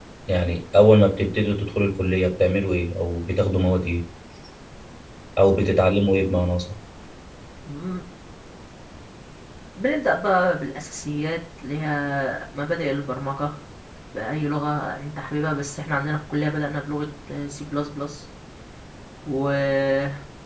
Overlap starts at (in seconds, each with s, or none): none